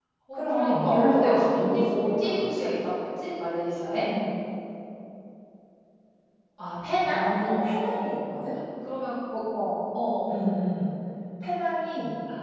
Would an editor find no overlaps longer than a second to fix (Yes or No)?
No